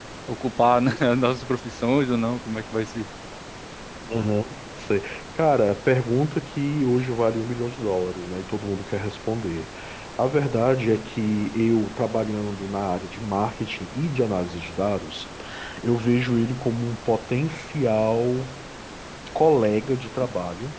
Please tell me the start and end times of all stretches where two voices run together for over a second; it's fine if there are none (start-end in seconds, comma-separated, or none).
none